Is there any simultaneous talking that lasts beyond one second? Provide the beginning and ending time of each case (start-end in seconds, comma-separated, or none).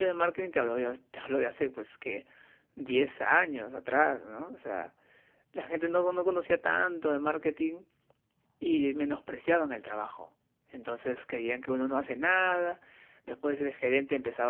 none